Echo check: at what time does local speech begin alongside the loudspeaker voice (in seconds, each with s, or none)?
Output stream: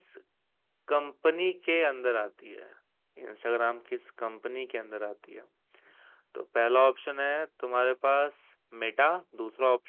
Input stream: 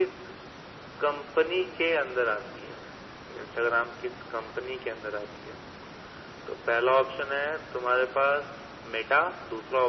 none